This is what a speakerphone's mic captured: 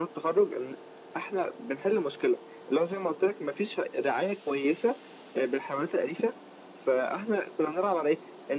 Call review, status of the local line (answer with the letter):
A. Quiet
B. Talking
A